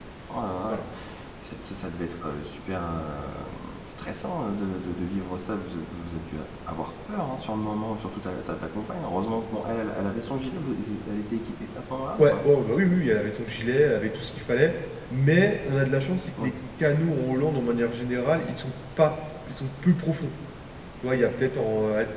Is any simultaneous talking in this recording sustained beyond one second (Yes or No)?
No